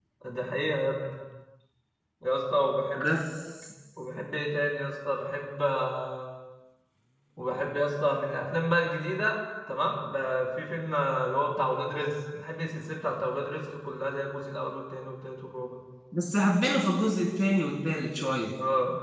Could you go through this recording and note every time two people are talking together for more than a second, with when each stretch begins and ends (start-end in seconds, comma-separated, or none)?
none